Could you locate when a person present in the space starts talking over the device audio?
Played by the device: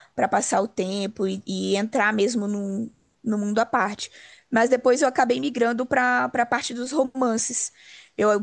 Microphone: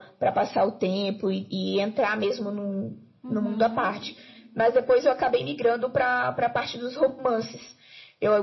3 s

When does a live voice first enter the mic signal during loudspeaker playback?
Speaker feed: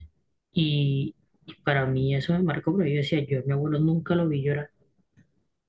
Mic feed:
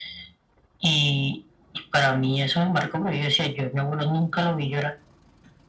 none

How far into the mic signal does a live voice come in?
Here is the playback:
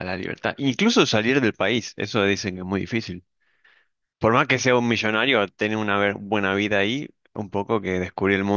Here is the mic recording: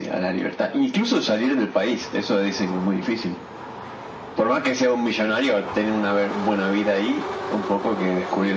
none

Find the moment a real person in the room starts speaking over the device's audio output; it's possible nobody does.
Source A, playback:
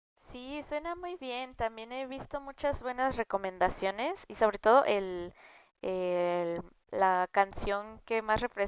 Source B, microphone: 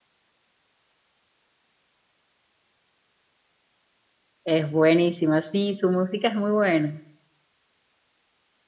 4 s

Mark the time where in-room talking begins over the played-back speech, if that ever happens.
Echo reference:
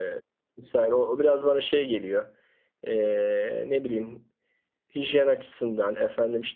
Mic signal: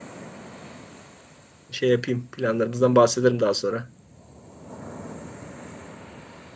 2 s

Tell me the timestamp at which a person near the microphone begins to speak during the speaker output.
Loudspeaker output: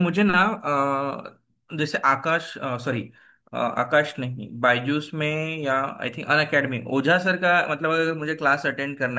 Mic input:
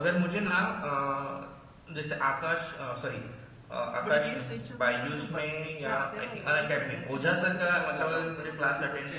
4 s

